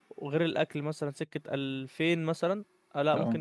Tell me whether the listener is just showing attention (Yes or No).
Yes